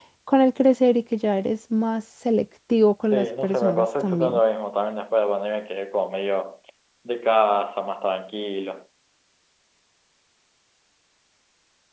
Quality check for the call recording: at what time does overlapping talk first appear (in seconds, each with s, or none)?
3.0 s